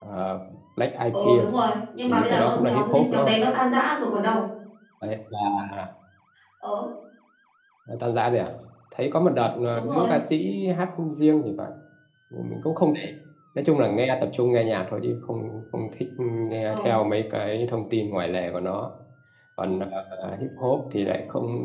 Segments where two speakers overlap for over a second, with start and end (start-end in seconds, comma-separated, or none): 2.1-3.4